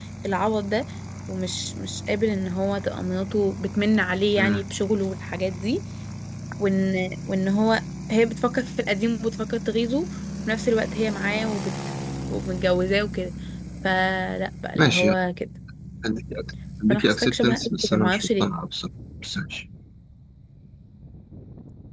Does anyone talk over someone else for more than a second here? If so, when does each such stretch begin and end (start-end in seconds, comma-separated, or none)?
16.9-18.5